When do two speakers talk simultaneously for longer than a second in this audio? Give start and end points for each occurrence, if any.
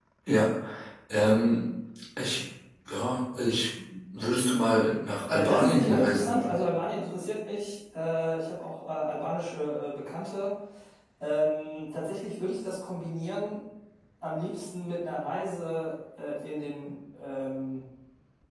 5.3-6.6

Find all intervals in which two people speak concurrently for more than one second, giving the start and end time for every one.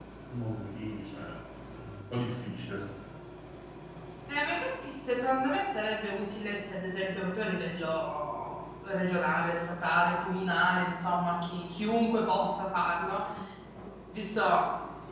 none

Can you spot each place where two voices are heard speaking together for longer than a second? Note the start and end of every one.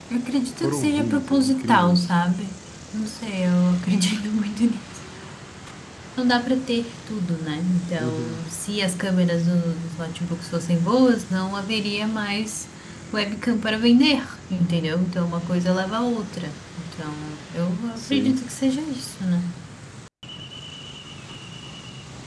0.6-2.2

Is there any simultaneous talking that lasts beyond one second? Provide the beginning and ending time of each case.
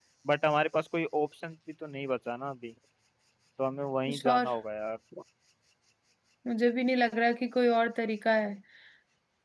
none

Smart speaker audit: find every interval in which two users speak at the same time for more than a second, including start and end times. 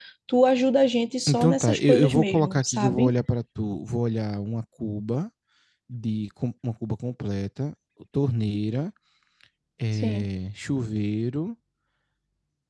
1.3-3.1

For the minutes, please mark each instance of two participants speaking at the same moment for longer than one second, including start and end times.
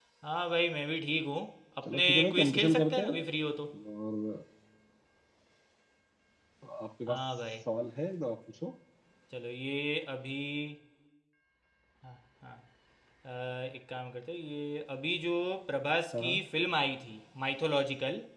1.9-3.2

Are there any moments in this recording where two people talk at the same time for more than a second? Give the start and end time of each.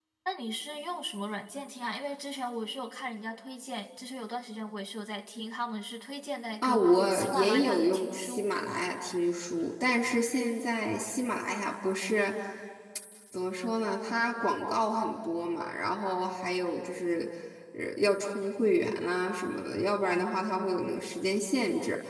6.6-8.5

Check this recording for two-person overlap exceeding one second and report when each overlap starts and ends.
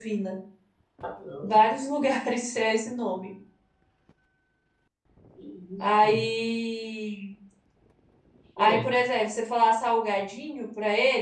none

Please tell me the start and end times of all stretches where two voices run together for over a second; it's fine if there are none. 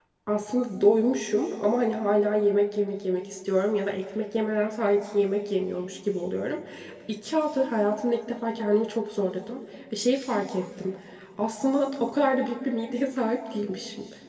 none

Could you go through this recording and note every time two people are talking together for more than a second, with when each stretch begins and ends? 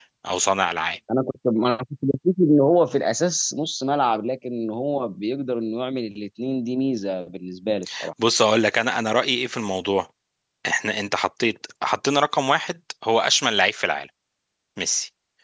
none

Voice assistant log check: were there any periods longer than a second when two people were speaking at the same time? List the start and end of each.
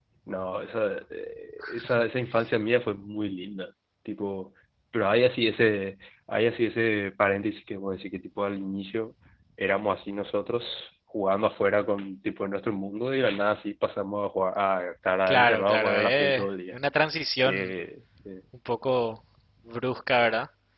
15.3-16.7

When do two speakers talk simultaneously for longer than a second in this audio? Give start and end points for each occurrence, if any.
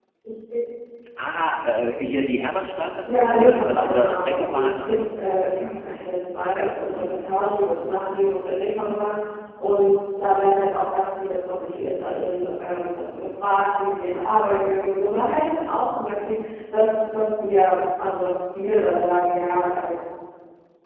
3.0-5.1

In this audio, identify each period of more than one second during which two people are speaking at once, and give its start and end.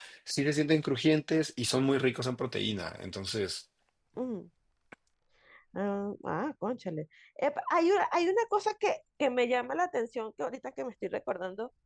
none

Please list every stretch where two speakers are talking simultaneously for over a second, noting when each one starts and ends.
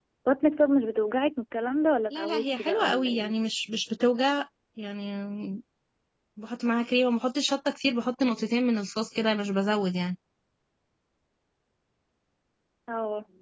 2.1-3.4

